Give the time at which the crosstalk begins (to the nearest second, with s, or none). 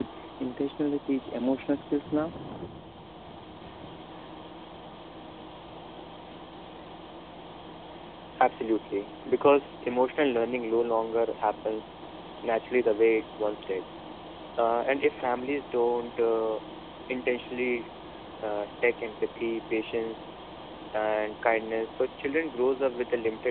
none